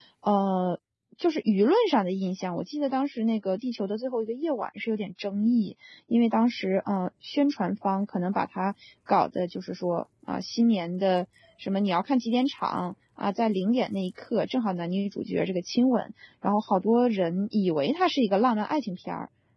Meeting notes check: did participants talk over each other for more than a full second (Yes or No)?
No